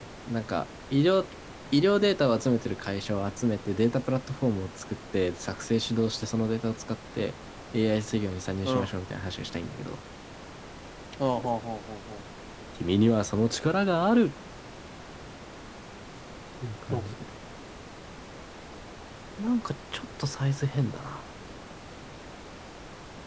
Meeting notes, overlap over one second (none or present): none